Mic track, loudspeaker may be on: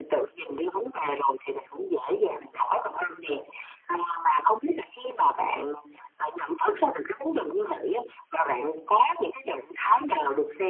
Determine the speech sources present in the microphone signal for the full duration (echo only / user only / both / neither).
echo only